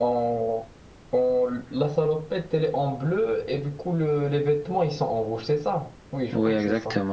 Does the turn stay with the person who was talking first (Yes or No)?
No